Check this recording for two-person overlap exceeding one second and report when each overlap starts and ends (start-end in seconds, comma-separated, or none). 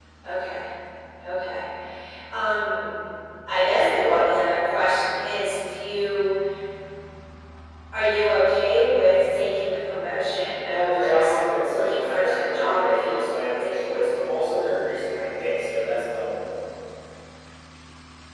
10.7-13.7